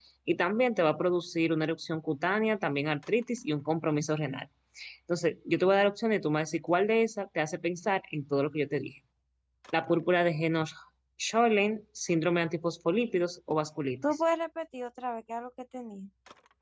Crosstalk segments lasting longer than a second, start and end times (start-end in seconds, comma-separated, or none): none